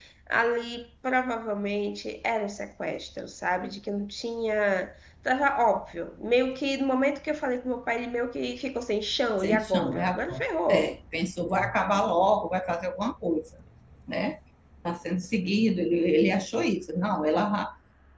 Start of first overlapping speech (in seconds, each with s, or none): 9.4 s